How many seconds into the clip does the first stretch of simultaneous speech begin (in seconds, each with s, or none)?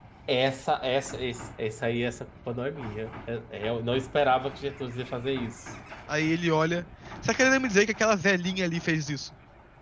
none